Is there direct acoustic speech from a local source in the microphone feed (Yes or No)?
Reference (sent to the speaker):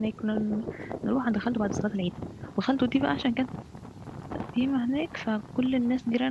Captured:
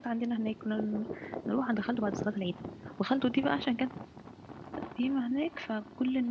No